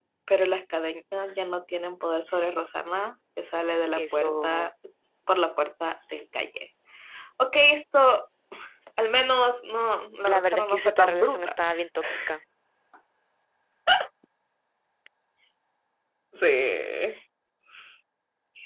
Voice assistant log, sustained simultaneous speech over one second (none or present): present